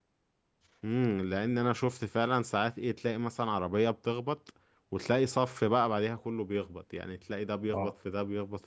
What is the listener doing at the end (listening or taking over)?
listening